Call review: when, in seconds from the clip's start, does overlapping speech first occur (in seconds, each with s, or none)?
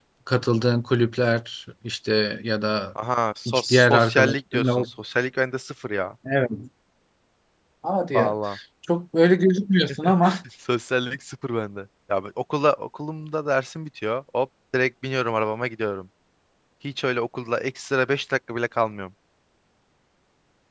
3.5 s